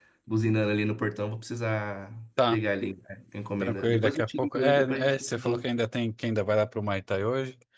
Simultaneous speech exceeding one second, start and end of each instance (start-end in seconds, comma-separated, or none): 3.6-5.7